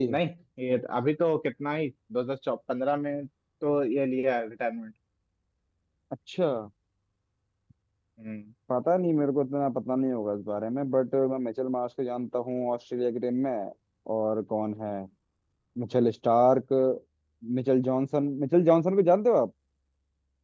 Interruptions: none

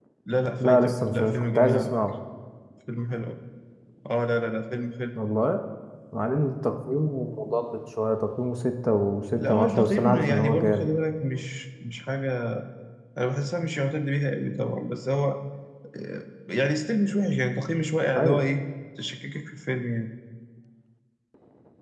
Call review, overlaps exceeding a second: present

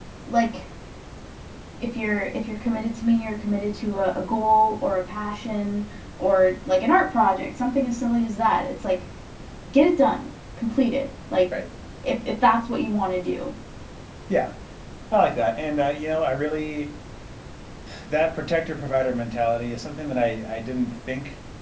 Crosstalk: none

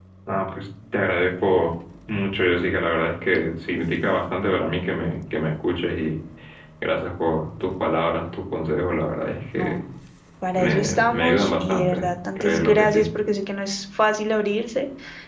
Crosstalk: present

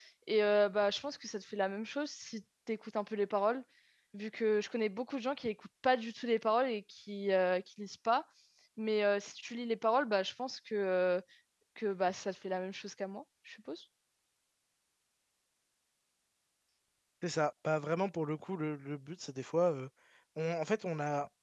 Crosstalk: none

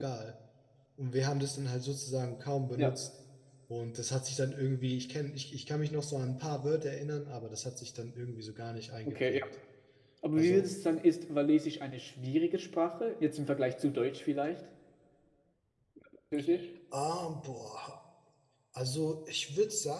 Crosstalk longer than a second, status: none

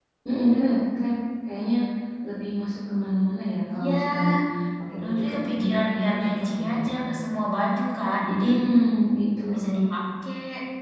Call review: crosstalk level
present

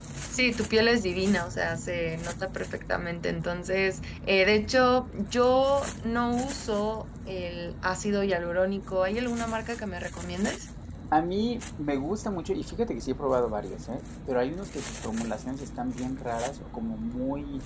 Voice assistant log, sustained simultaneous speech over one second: none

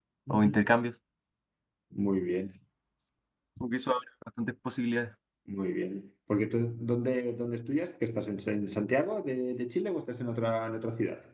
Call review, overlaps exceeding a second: none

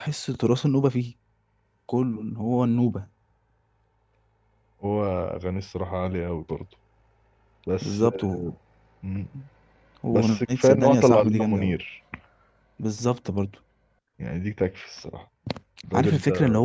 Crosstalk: present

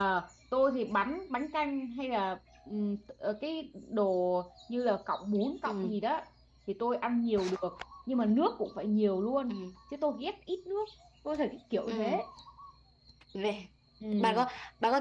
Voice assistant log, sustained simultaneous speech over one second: none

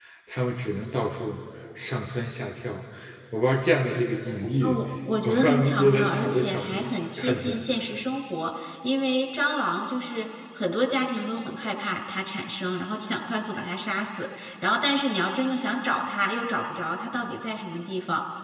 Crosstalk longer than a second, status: present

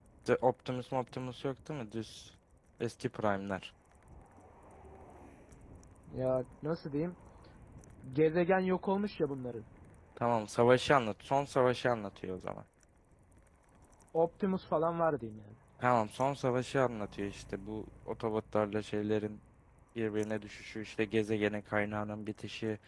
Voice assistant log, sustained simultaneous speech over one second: none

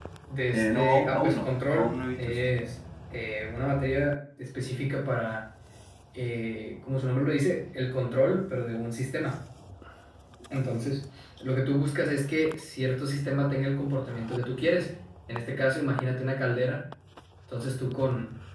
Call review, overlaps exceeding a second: present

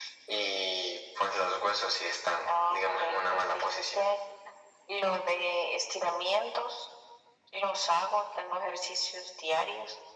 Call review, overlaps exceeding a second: present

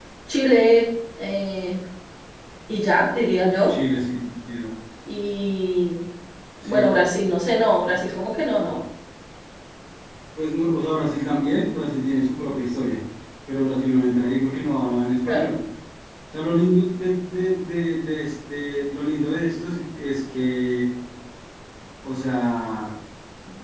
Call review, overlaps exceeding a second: none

